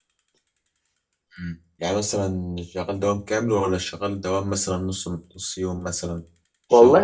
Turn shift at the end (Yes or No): Yes